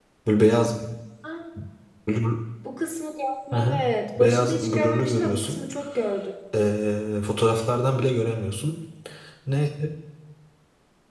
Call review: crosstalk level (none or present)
present